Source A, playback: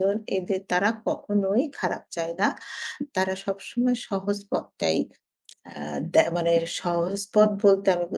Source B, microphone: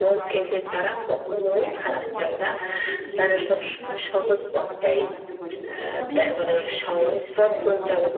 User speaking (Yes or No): Yes